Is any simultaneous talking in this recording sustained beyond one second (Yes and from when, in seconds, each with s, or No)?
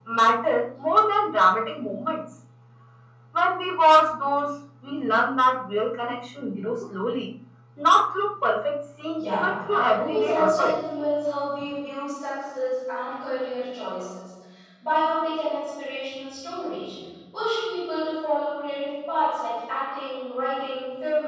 Yes, from 9.2 s